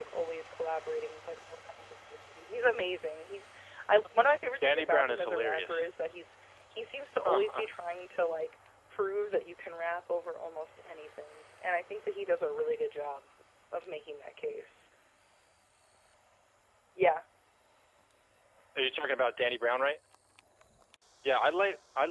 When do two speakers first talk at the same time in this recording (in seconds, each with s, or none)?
4.6 s